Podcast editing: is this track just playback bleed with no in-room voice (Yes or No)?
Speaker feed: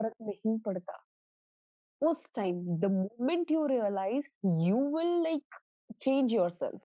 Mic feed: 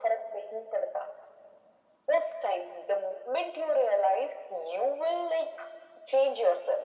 Yes